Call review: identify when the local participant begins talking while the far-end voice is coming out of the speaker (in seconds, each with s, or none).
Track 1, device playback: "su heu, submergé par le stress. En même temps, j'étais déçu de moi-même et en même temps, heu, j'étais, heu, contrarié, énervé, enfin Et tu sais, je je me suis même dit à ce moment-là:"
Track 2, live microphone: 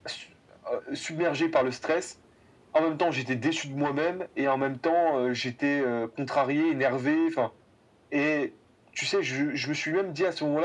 none